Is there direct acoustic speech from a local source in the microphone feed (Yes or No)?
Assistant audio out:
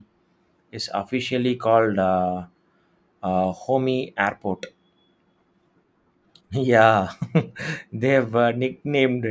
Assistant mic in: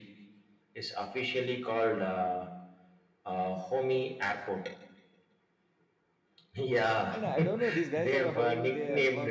Yes